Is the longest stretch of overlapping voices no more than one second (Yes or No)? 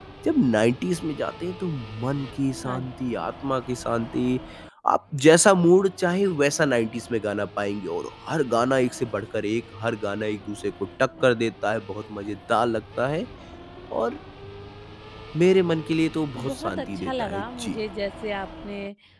No